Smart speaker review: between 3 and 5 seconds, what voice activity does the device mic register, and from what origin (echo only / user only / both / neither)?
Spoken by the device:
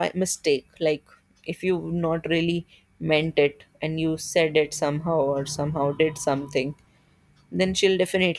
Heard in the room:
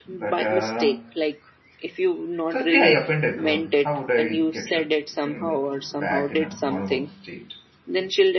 both